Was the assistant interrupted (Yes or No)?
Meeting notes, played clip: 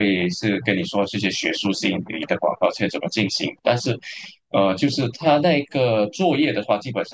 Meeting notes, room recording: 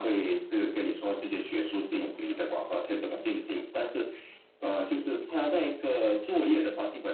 No